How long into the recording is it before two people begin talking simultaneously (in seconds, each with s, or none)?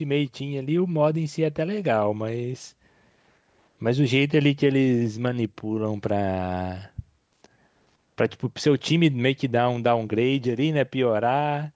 none